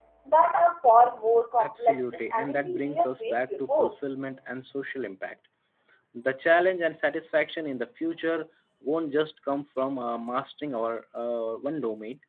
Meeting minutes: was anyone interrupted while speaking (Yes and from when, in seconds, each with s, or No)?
Yes, from 1.6 s